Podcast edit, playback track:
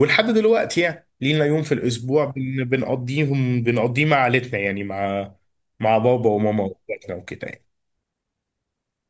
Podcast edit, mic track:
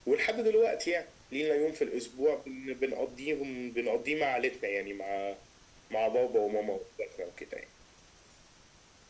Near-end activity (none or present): none